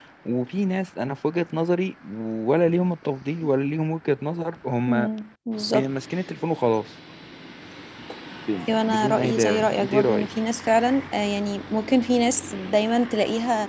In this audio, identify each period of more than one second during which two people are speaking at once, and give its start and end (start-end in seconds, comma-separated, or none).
8.8-10.3